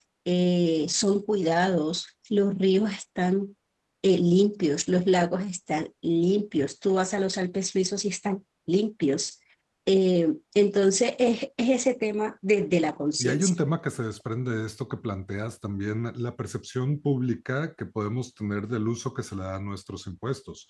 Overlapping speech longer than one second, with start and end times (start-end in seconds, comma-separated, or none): none